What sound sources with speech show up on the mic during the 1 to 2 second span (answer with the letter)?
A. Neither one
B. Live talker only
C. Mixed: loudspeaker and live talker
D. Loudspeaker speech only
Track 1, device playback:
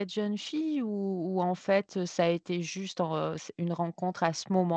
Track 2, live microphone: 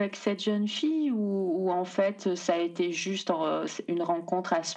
D